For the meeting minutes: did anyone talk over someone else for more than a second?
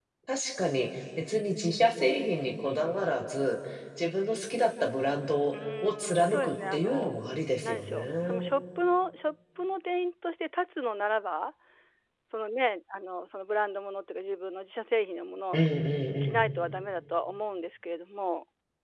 Yes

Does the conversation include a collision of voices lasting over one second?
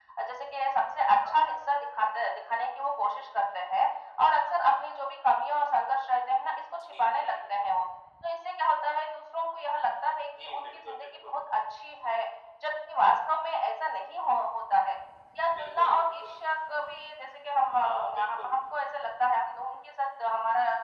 Yes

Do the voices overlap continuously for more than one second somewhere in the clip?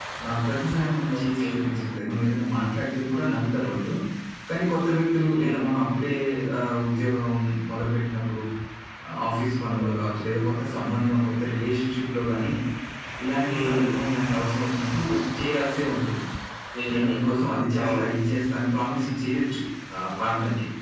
No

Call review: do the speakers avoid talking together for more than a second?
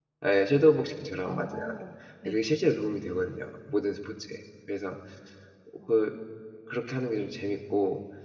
Yes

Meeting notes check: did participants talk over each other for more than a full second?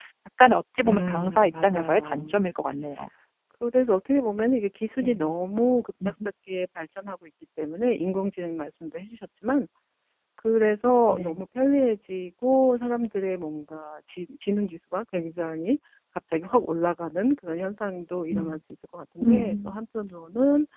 Yes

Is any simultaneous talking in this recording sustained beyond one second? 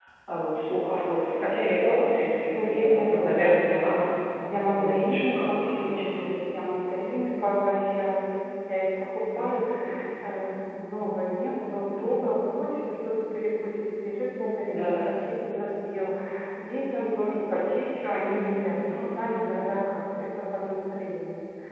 Yes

